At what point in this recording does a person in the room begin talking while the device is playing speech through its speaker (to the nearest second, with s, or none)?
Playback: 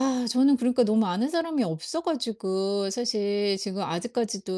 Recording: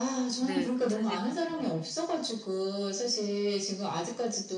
0 s